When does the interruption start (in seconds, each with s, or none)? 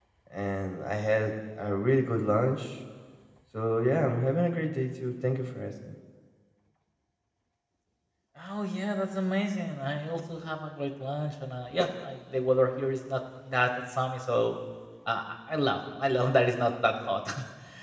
none